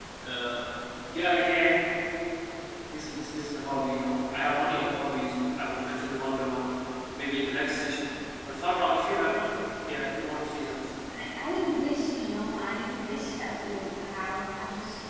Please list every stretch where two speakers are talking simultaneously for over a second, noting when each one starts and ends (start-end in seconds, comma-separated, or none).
none